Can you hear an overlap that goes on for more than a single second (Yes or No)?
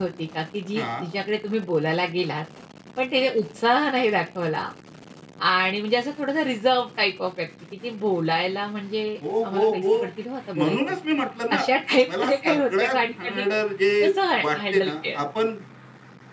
Yes